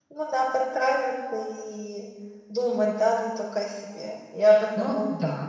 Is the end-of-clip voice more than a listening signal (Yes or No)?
Yes